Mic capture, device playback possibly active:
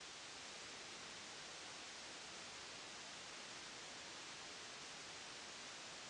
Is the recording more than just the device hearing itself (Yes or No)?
No